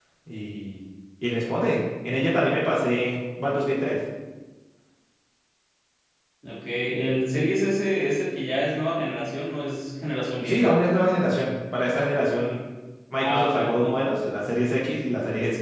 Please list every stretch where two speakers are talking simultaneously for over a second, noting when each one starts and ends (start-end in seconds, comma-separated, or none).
none